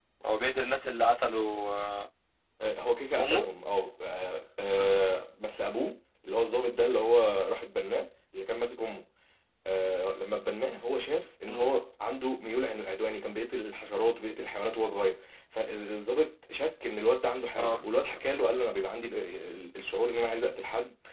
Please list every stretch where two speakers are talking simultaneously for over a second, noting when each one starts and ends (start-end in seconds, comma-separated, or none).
none